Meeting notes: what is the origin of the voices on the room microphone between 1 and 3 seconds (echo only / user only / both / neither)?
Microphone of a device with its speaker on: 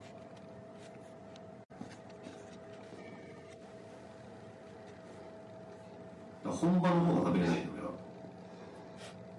neither